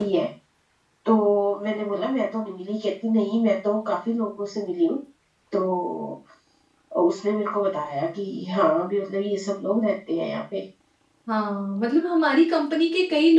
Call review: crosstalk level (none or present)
none